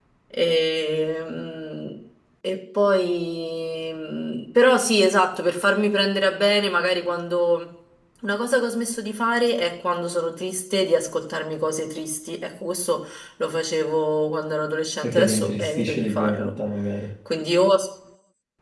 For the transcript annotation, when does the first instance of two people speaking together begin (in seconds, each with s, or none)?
15.0 s